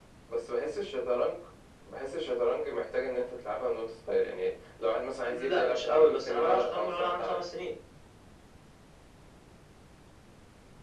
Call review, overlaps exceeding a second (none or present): present